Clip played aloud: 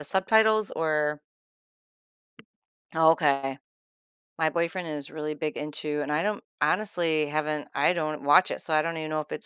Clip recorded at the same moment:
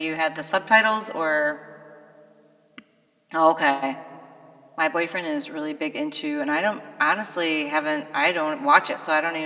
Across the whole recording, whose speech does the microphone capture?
echo only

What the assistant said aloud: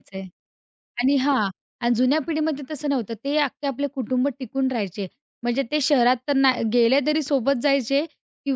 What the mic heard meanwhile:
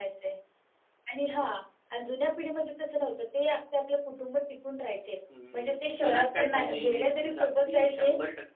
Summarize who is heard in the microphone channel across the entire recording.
both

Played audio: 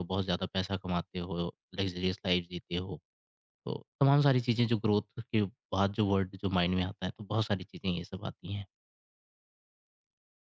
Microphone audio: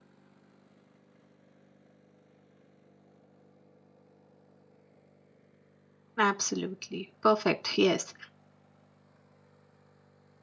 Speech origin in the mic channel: user only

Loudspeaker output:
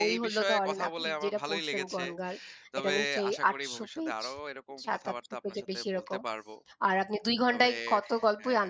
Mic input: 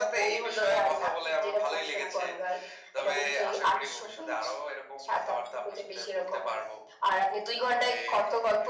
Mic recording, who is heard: echo only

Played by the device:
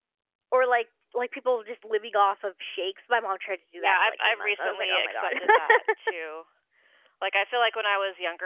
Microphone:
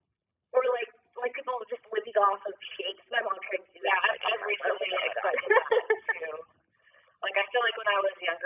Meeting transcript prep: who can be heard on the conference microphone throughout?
echo only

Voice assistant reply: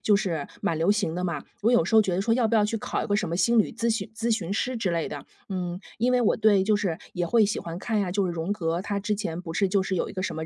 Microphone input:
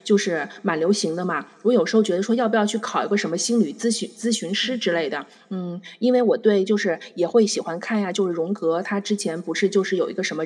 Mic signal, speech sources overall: both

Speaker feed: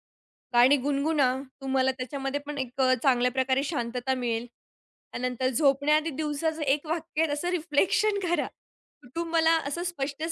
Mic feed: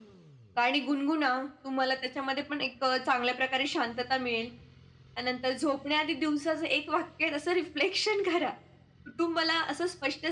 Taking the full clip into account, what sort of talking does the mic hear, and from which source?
echo only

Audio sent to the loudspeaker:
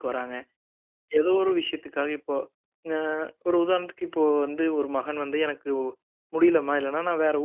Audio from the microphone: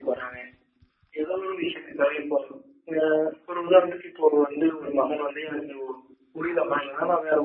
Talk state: echo only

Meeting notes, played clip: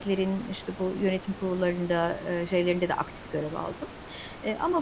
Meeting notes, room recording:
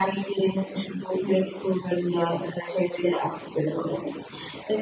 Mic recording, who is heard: echo only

